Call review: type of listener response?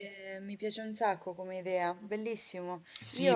taking over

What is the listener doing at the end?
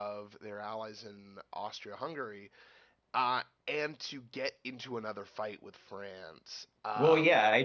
taking over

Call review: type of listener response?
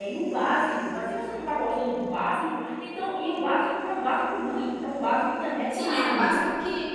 taking over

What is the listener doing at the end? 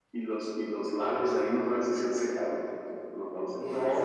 taking over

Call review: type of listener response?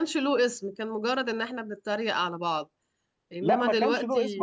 taking over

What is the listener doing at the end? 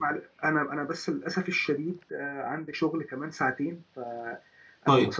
listening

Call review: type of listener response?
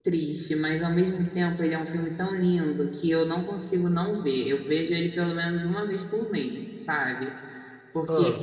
listening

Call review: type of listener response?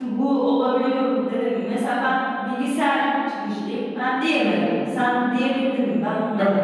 taking over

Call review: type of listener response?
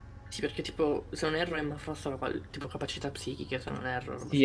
taking over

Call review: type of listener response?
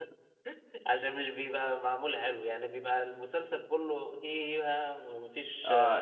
taking over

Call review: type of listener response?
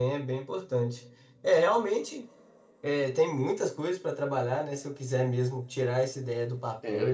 listening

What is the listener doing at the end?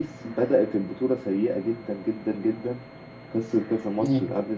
listening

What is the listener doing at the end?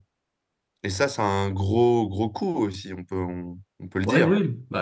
taking over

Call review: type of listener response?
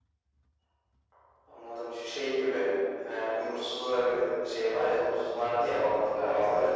listening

